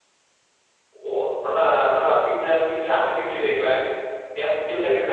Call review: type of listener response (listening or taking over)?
taking over